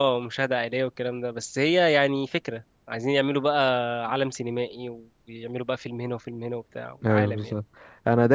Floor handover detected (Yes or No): Yes